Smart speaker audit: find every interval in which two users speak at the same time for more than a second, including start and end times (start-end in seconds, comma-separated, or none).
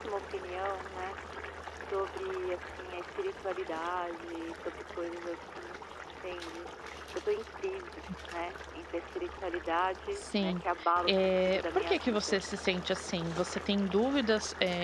11.0-12.4